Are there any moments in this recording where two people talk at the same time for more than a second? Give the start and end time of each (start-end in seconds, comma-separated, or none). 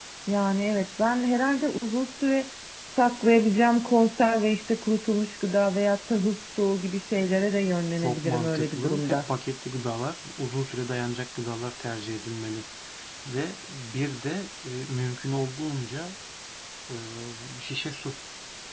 8.0-9.3